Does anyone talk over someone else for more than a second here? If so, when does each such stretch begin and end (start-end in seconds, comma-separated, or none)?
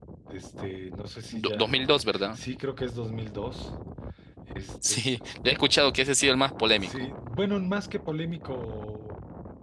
none